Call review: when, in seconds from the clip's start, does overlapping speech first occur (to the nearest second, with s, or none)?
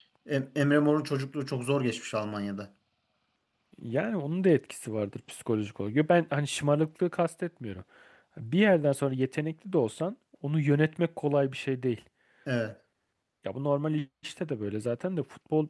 none